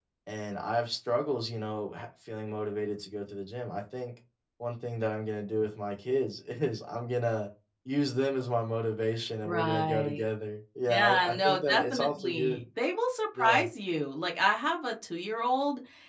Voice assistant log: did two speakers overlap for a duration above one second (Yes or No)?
Yes